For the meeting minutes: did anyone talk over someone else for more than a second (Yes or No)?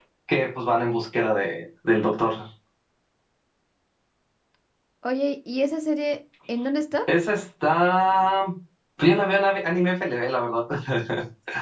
No